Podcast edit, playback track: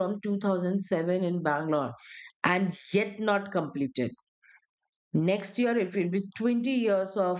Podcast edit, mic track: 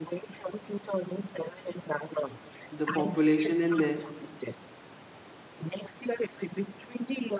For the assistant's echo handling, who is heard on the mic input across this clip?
both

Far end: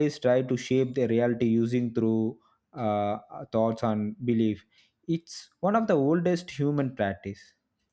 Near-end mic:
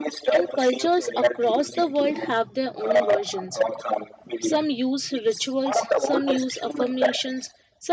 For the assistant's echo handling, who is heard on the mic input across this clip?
both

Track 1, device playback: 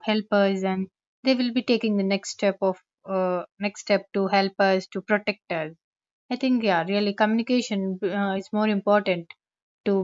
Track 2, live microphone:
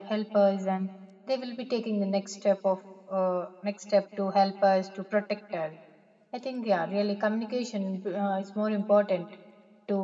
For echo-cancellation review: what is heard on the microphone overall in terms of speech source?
echo only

